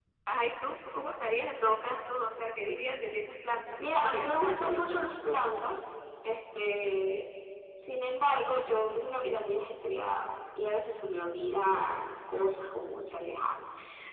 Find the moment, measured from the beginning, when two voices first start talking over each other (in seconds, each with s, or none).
3.8 s